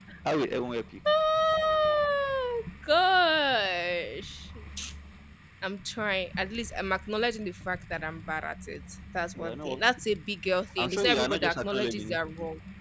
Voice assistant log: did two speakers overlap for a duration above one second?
Yes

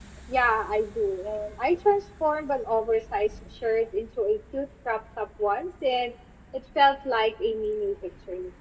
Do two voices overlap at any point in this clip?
No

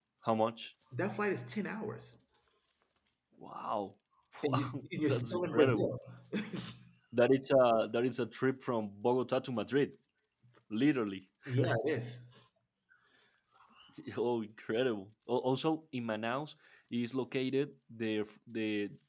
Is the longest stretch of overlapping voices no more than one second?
No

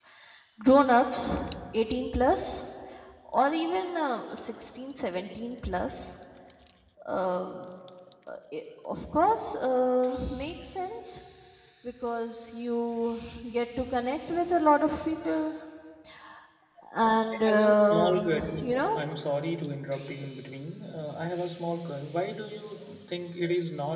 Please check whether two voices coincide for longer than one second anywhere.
Yes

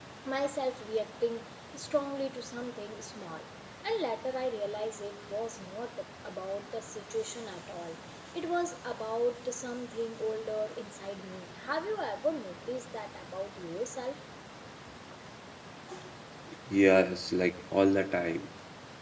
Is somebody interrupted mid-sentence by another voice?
No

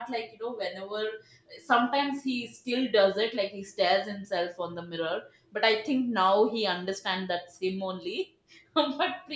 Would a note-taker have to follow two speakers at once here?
No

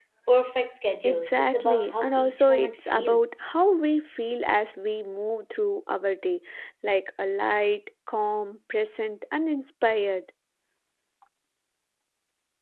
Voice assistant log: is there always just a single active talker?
No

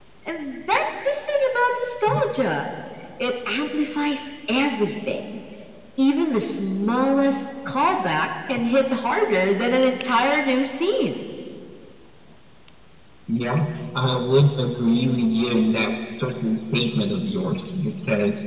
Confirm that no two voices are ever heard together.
Yes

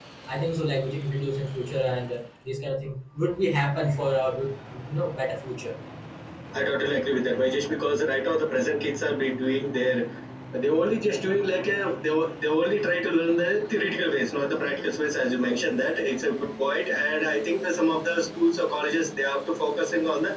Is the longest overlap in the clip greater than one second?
No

